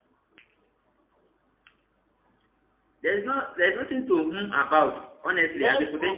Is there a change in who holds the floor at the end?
Yes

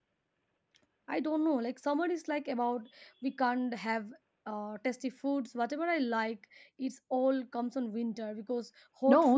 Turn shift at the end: Yes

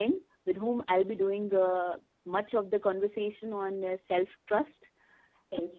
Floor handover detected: No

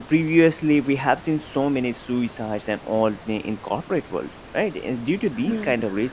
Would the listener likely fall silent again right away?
Yes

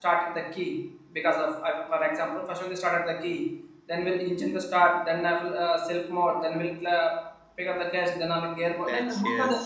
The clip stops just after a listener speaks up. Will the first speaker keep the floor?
Yes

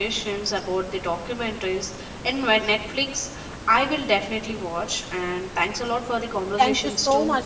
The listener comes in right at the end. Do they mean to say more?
Yes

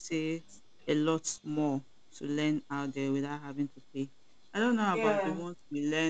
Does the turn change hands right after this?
No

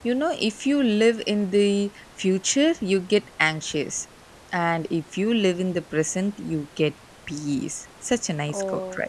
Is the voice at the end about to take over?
Yes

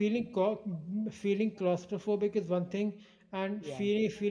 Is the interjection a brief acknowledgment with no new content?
Yes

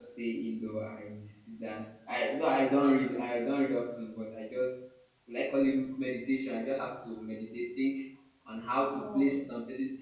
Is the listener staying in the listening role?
Yes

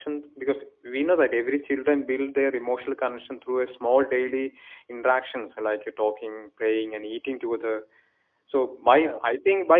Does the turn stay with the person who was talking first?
Yes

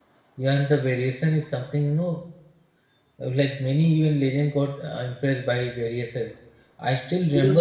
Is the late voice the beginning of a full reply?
No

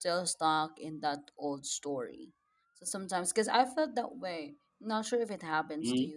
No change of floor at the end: Yes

